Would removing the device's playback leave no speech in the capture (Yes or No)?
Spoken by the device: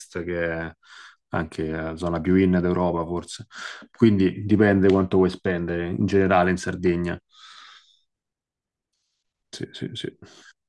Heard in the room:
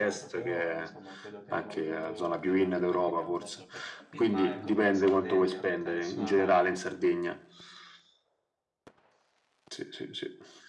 No